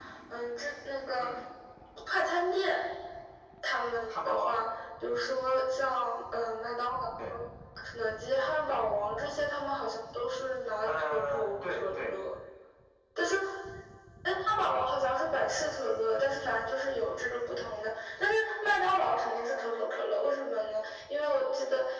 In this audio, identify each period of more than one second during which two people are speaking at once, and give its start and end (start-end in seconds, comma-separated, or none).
10.9-12.2